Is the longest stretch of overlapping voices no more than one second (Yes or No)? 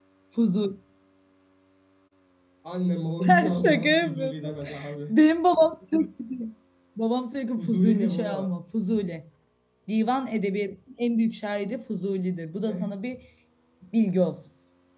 No